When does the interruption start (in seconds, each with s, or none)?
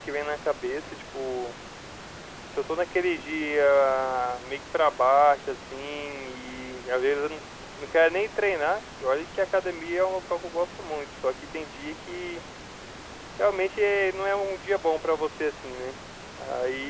none